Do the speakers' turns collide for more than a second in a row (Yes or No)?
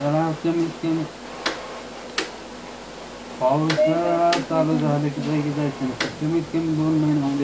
Yes